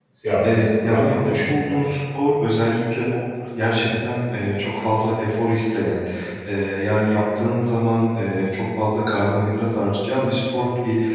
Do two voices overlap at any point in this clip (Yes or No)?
Yes